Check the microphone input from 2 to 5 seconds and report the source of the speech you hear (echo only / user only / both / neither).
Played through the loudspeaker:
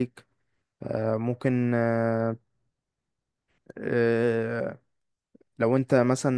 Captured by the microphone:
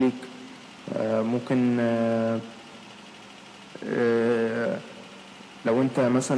echo only